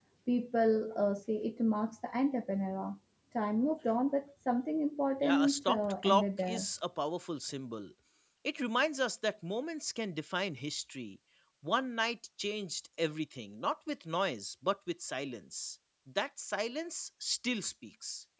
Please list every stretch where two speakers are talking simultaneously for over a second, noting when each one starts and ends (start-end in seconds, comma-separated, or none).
5.2-6.7